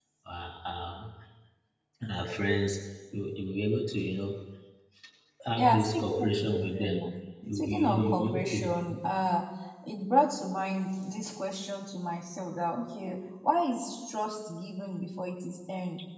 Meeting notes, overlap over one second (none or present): present